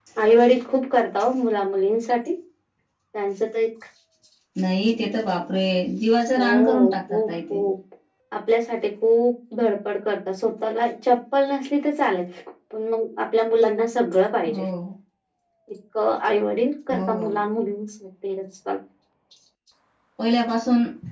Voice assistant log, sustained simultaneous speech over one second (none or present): present